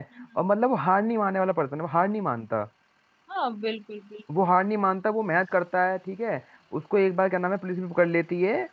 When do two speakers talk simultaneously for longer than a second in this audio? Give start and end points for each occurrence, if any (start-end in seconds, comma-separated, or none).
none